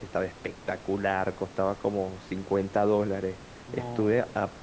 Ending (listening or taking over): listening